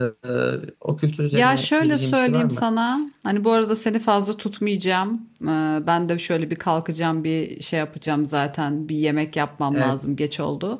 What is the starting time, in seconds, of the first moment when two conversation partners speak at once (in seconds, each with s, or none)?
1.3 s